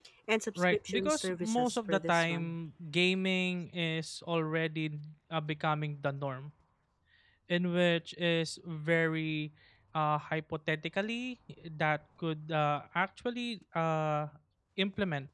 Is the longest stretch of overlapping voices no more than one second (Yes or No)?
No